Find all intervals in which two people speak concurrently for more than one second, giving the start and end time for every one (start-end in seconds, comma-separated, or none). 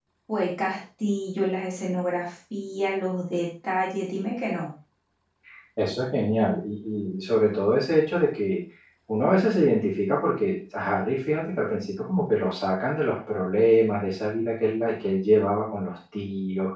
none